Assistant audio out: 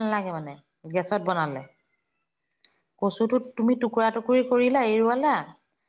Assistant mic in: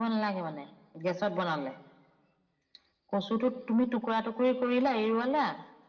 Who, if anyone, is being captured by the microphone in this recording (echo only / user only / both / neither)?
echo only